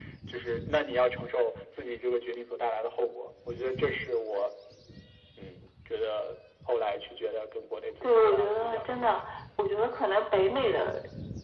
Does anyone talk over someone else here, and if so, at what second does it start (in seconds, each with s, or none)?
8.0 s